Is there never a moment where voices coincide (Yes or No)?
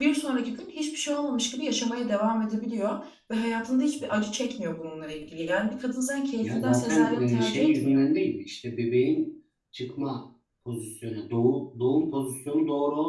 No